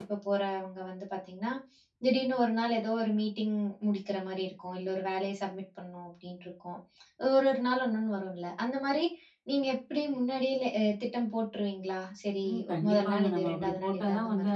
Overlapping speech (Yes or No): Yes